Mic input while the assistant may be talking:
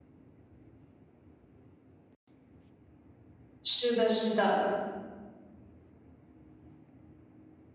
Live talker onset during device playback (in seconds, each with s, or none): 3.6 s